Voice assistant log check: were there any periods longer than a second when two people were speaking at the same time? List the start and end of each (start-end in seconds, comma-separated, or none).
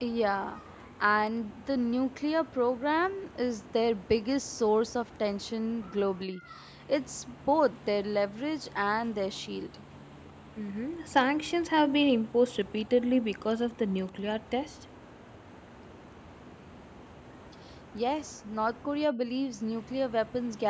none